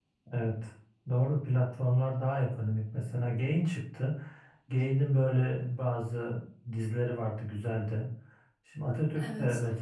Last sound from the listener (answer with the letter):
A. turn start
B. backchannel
B